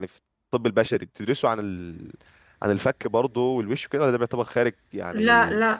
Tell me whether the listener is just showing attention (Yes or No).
No